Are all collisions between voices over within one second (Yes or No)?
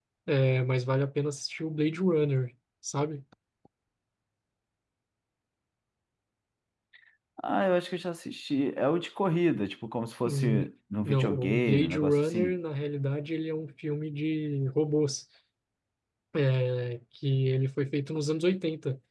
No